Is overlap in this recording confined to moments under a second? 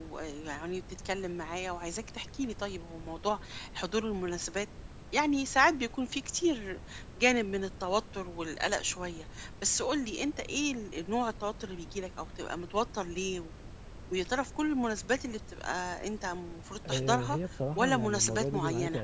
No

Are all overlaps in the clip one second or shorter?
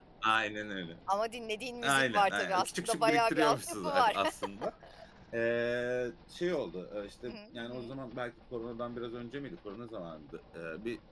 No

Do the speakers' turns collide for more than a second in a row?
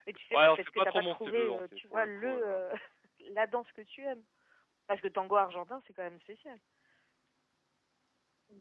Yes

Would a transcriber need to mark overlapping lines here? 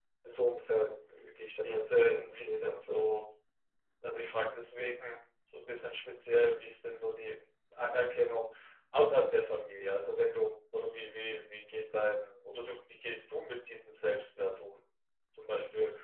Yes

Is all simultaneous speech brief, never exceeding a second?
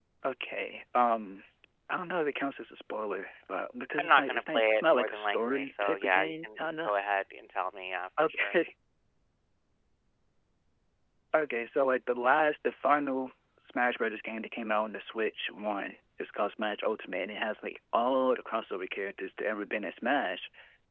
No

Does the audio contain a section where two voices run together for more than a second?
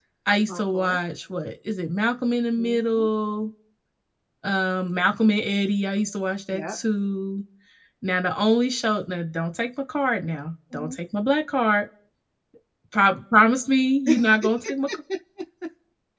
No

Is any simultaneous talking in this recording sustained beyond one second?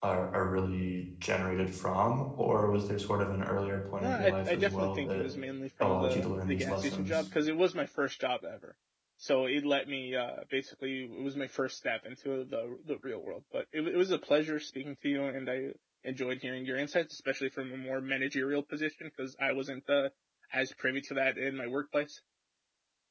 Yes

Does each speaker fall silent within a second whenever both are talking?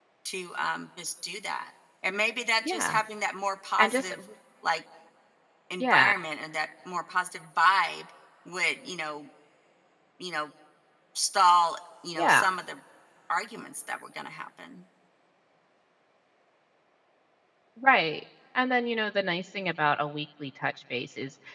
Yes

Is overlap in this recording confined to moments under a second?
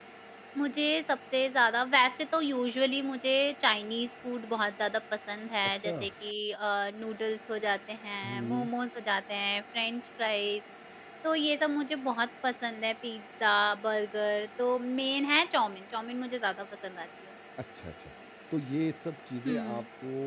Yes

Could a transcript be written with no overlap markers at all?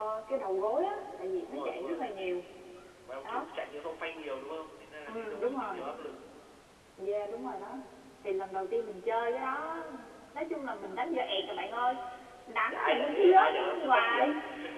No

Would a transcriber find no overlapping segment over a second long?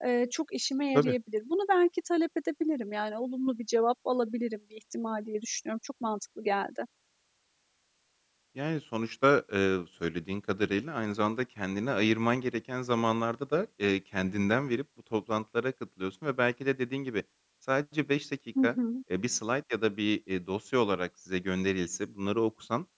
Yes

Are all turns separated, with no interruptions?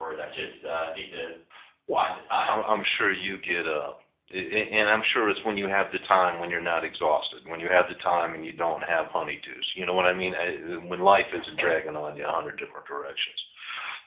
Yes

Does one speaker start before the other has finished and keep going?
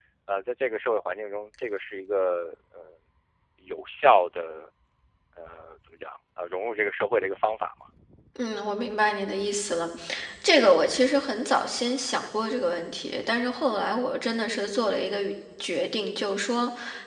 No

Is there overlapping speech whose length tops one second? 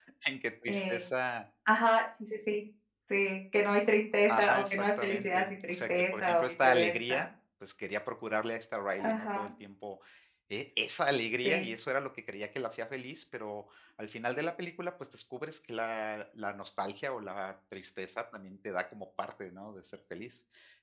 Yes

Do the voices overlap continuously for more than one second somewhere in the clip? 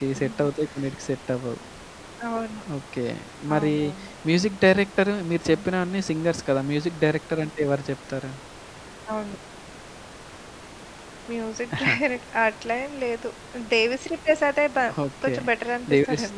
No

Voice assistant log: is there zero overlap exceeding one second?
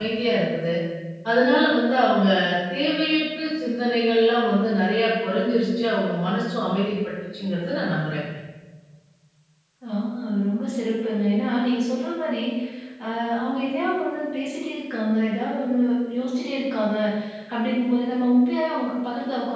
Yes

